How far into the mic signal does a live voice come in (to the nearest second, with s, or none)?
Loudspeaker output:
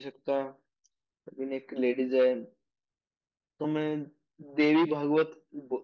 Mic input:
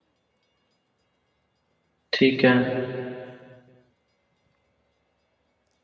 2 s